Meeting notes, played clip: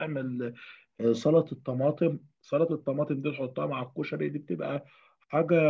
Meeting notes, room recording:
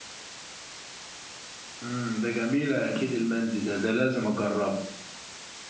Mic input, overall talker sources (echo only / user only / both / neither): user only